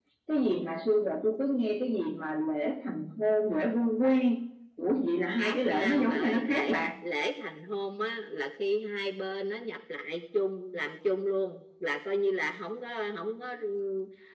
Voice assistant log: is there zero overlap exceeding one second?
No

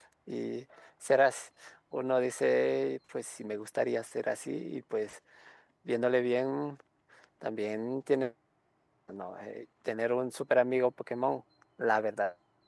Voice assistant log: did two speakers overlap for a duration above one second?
No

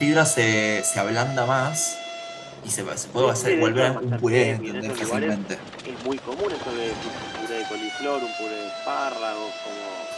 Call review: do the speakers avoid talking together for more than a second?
No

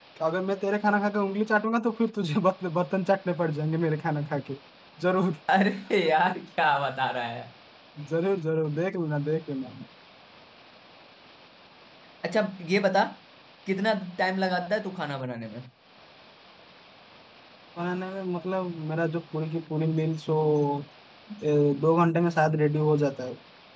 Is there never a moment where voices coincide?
Yes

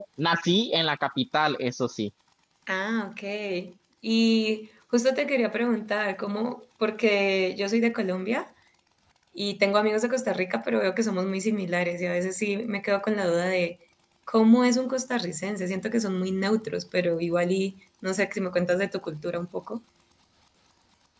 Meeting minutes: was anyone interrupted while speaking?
No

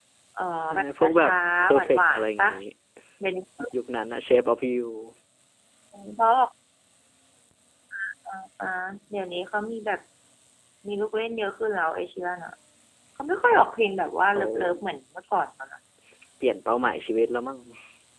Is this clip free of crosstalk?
No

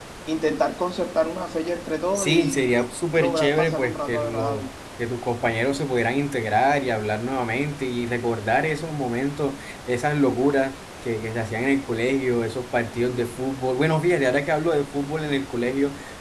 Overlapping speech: Yes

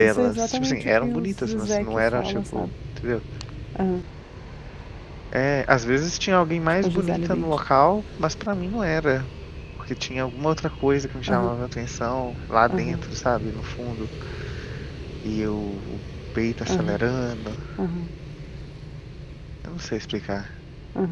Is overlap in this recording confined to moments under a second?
No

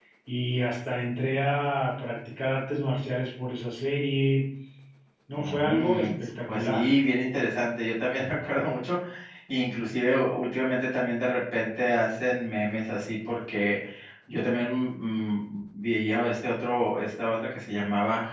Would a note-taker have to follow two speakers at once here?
Yes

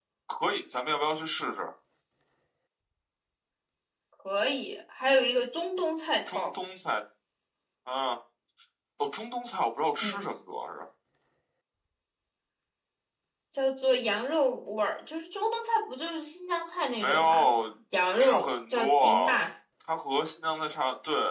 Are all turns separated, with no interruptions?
No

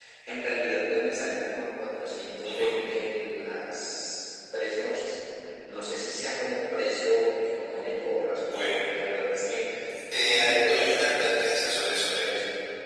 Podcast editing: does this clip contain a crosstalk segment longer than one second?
Yes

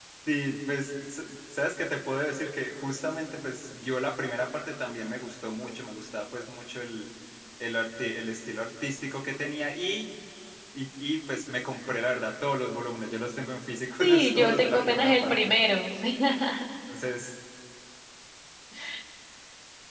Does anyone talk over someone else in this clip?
Yes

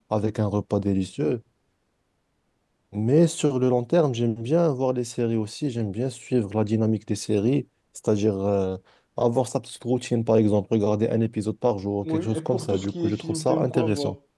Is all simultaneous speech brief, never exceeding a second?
No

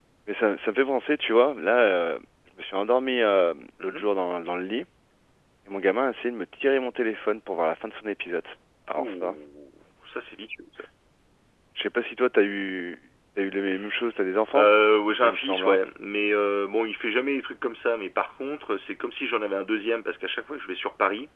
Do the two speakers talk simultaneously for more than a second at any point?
No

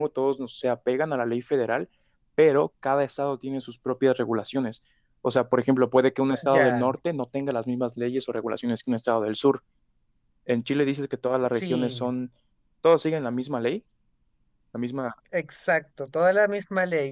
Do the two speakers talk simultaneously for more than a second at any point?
No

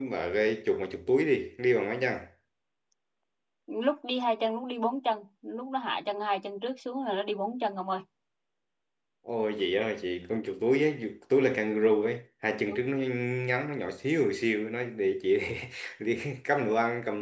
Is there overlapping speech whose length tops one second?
No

